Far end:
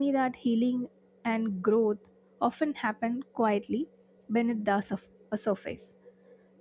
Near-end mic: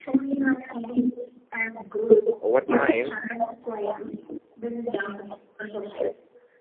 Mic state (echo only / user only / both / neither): both